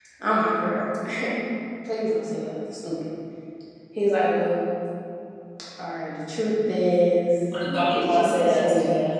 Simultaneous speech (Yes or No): Yes